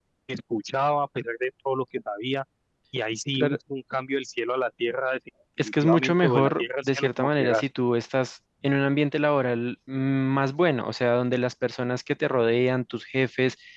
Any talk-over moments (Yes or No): Yes